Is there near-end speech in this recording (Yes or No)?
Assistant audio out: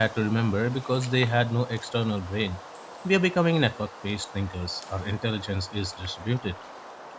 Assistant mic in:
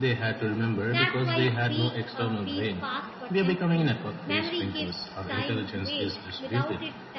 Yes